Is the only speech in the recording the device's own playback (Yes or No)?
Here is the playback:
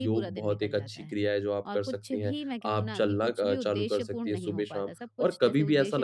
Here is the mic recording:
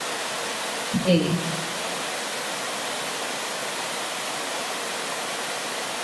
No